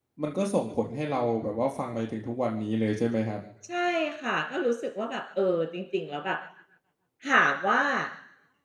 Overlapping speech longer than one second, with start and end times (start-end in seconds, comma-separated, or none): none